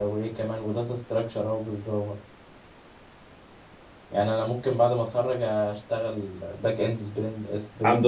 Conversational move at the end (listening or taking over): taking over